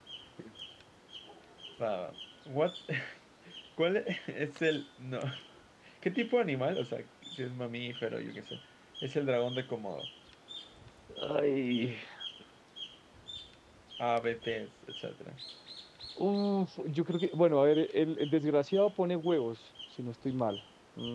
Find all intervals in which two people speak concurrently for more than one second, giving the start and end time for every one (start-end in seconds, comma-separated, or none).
none